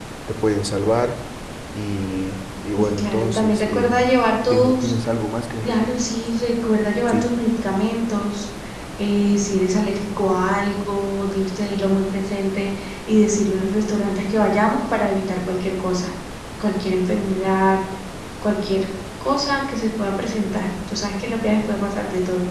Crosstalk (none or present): present